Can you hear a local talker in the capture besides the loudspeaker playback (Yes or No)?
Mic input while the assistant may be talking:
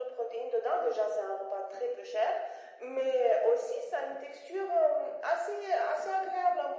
No